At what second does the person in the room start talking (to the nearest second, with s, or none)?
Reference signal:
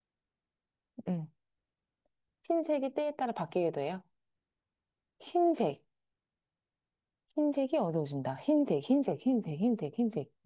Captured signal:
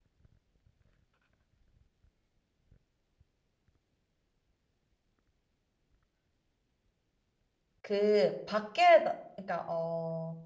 8 s